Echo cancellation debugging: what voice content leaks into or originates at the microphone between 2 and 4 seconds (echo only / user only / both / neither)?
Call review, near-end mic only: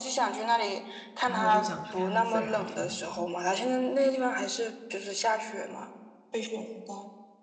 both